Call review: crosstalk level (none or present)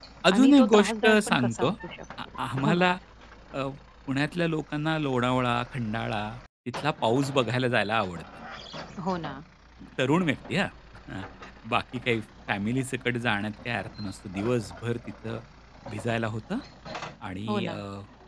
present